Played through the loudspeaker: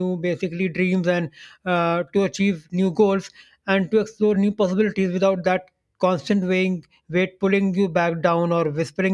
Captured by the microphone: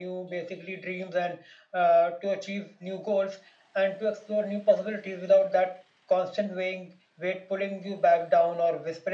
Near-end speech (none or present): none